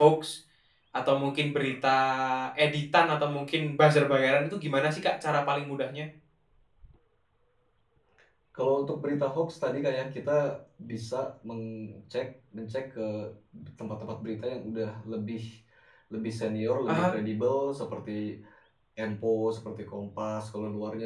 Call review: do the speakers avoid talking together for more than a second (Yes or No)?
Yes